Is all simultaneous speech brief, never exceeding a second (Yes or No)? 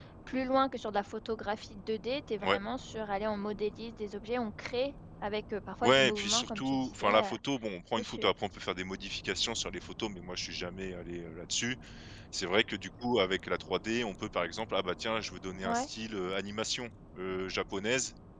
No